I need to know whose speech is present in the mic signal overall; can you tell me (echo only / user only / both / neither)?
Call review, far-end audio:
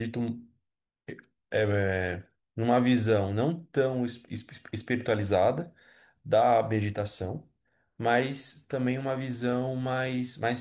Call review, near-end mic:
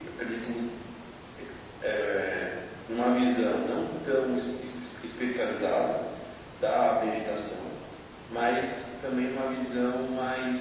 echo only